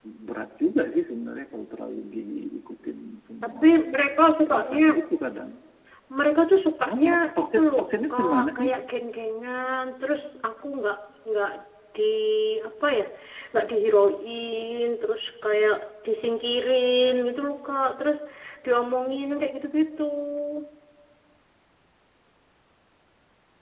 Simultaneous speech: Yes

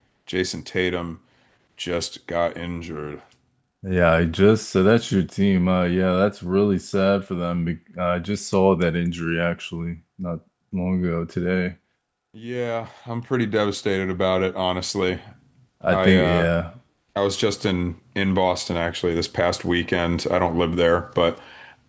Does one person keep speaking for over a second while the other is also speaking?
No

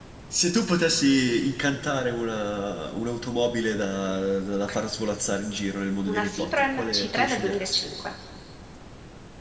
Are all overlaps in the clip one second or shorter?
No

